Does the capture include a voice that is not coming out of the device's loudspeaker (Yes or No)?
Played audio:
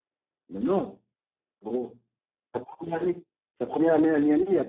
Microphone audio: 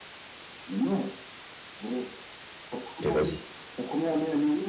Yes